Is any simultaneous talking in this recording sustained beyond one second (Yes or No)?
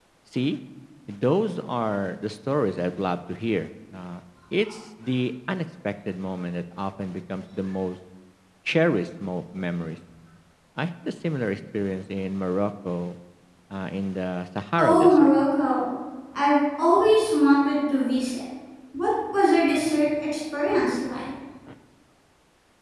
No